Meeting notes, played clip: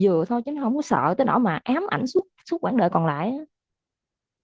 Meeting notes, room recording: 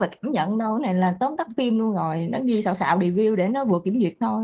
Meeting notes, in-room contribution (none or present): present